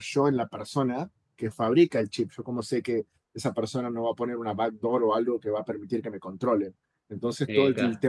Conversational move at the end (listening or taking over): listening